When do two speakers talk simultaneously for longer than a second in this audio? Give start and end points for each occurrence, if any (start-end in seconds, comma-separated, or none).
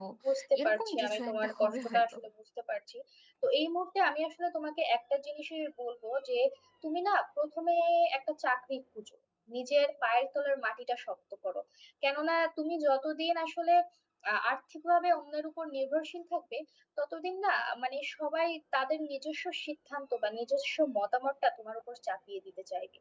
0.6-2.0